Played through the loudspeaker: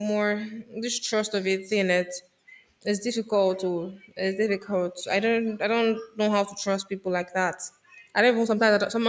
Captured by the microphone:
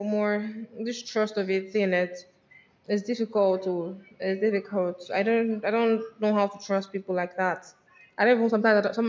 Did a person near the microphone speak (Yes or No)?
No